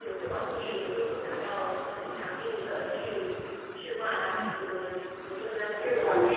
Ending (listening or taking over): taking over